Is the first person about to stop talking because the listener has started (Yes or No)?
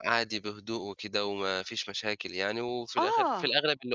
No